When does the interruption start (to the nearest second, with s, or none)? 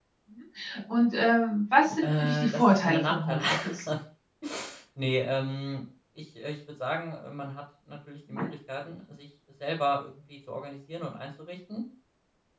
2 s